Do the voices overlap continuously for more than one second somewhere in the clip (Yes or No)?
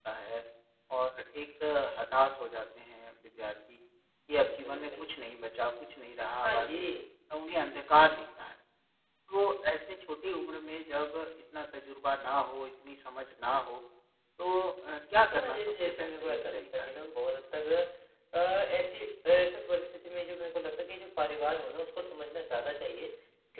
Yes